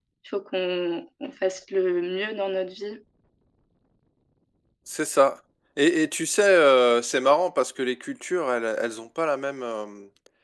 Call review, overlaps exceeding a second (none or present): none